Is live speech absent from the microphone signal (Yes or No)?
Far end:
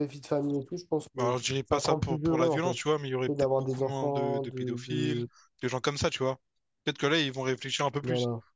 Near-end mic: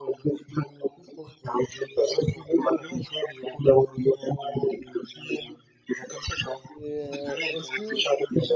No